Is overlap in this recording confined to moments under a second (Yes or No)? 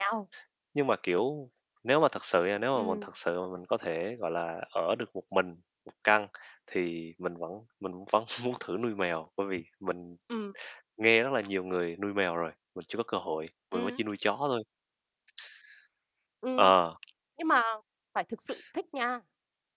Yes